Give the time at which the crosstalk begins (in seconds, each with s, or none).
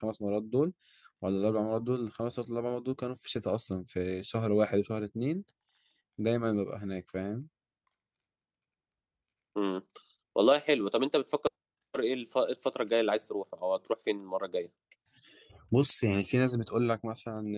none